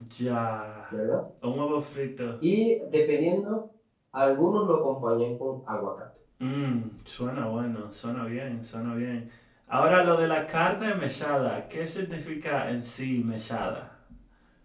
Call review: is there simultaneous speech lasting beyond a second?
No

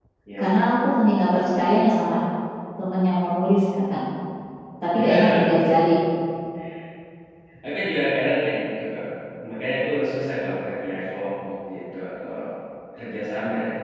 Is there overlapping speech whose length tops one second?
No

